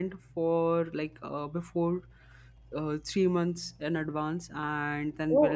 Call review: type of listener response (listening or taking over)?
listening